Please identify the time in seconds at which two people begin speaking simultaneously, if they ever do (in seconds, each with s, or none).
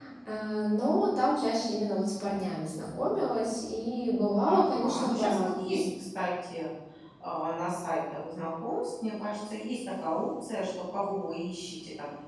4.4 s